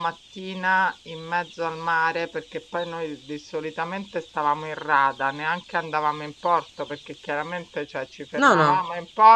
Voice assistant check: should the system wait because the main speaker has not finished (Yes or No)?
Yes